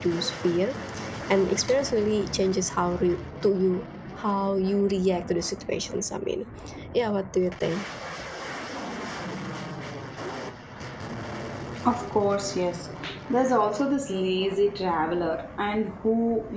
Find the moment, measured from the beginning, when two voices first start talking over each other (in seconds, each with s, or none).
none